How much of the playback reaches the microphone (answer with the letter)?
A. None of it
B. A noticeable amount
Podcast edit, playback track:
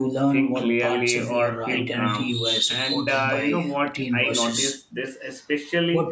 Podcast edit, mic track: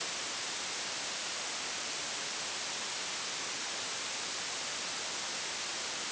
A